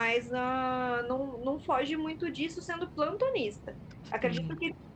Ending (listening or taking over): listening